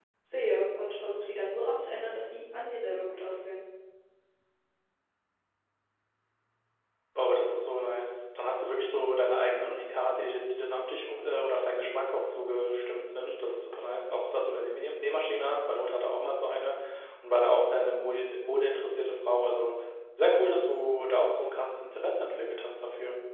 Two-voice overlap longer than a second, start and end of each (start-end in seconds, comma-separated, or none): none